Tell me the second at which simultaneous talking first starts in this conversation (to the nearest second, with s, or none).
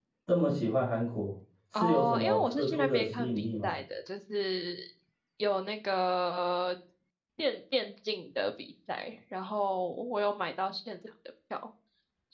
2 s